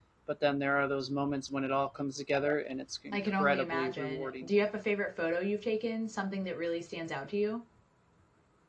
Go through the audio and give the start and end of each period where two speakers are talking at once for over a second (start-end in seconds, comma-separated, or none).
3.1-4.5